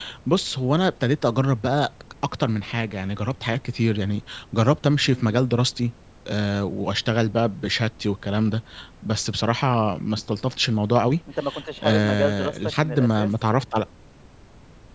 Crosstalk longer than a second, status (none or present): present